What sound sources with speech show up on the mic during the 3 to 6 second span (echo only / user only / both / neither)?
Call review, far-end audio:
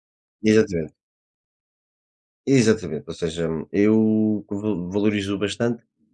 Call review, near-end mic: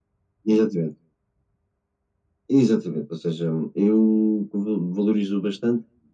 echo only